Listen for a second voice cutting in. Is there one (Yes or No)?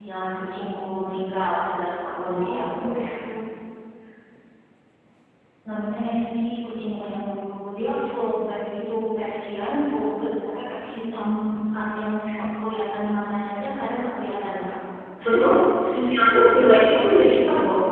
Yes